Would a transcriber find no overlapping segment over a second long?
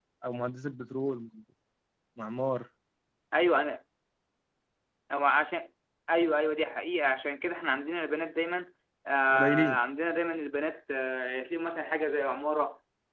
Yes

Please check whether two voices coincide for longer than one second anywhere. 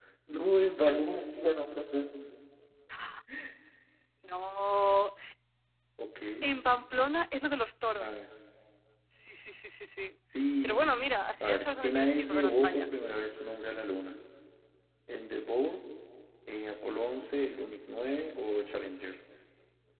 Yes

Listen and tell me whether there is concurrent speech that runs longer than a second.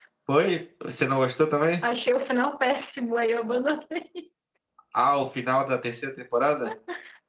No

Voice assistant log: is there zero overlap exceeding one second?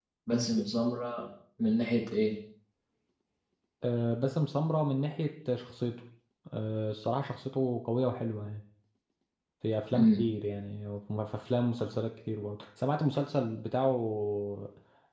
Yes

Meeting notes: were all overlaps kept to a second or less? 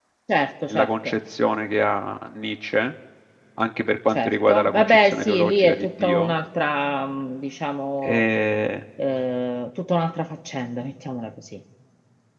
No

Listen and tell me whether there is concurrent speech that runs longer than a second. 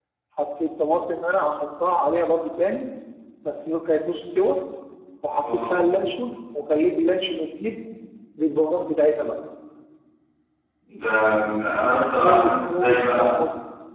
Yes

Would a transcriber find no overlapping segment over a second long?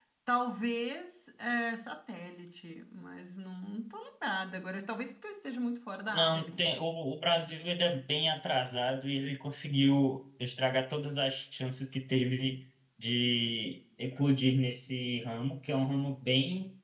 Yes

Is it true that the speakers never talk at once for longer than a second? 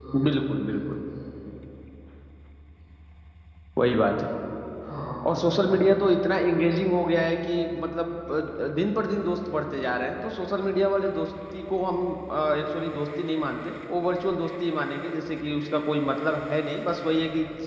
Yes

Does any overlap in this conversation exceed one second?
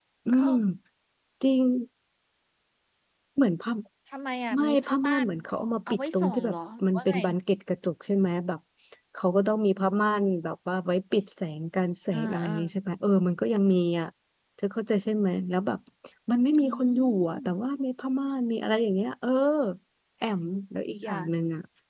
Yes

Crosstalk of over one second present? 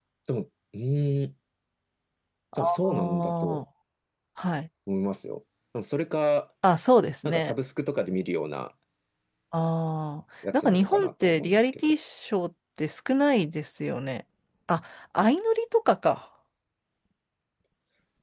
Yes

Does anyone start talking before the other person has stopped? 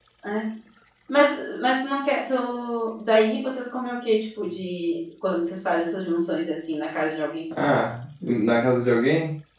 No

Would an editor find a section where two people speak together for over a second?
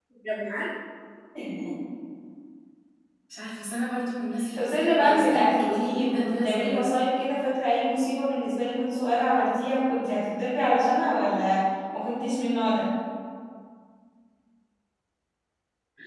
Yes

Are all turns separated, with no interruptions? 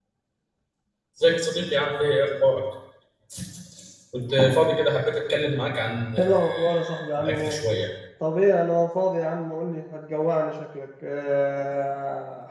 No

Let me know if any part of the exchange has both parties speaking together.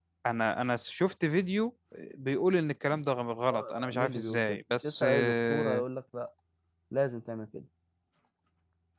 Yes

